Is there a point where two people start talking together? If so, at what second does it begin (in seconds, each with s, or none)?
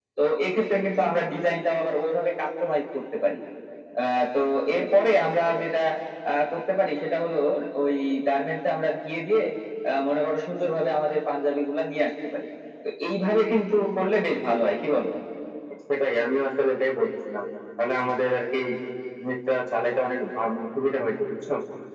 none